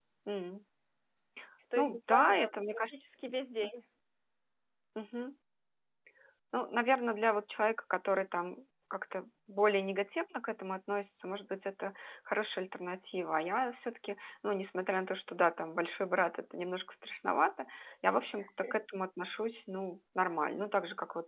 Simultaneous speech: Yes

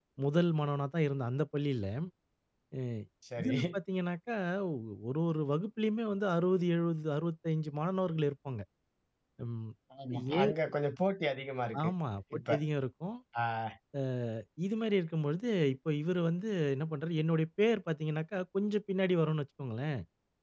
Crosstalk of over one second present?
No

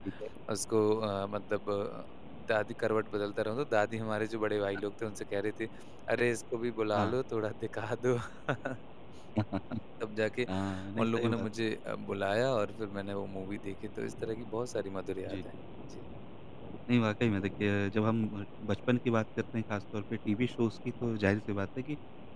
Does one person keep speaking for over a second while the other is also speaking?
No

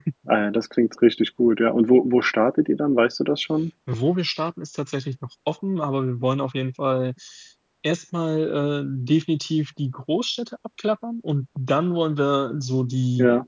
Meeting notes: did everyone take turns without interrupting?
Yes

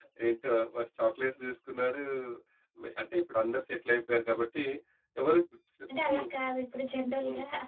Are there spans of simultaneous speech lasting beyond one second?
No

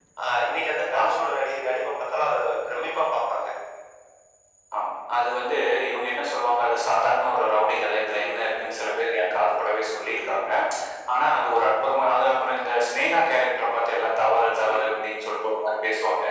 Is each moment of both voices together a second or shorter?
Yes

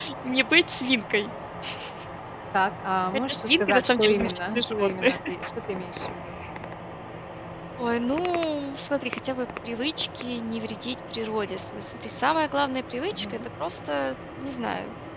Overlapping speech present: Yes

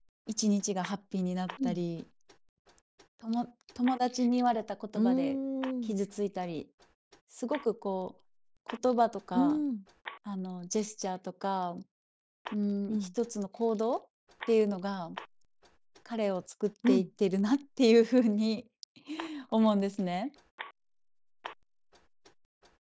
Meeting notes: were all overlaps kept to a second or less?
Yes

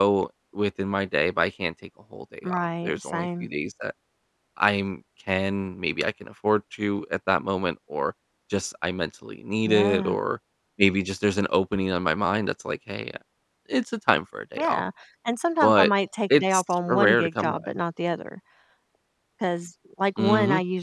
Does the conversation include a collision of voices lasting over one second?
Yes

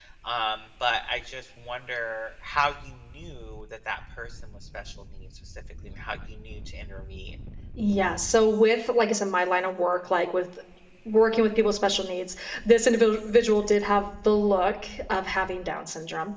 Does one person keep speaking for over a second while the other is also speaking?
No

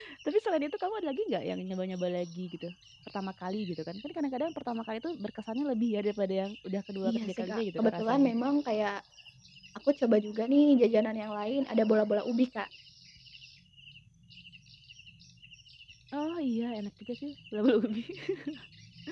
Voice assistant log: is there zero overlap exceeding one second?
No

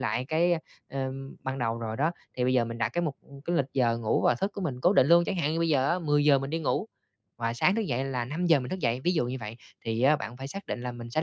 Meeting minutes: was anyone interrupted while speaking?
No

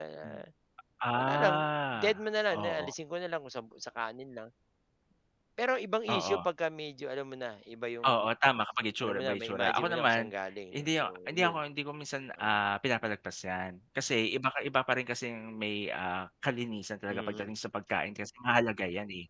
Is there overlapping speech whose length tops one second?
Yes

